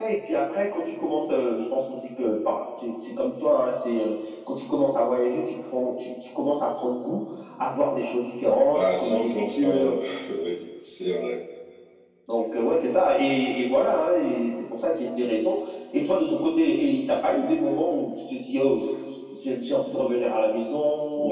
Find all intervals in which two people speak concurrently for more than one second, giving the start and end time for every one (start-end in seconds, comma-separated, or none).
8.7-10.0